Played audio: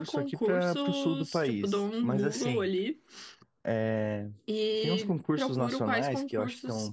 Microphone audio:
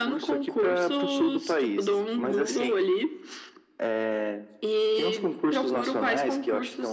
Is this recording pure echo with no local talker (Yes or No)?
Yes